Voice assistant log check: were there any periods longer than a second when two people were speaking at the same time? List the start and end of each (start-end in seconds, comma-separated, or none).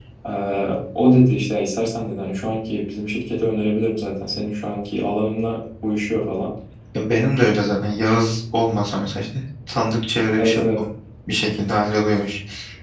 none